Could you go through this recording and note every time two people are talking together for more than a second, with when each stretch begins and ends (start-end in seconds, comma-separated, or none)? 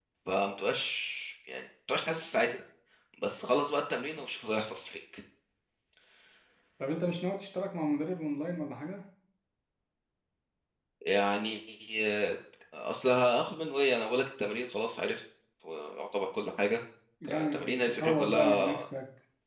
17.2-18.9